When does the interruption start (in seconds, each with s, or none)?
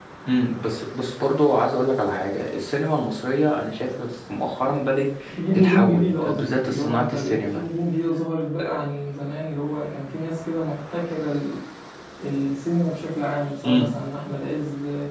5.5 s